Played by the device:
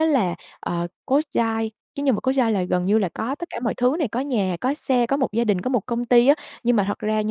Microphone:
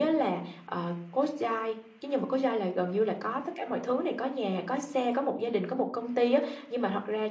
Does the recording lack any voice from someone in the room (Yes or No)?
Yes